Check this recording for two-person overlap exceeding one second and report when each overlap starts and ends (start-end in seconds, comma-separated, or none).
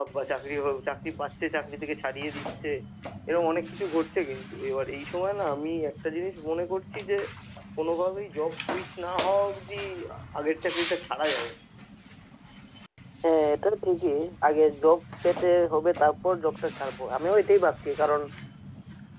none